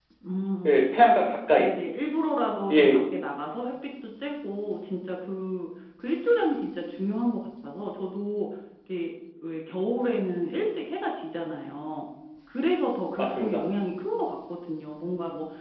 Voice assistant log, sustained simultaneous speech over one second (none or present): none